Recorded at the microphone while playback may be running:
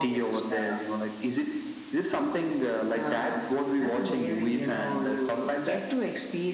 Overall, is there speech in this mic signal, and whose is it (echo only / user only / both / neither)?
echo only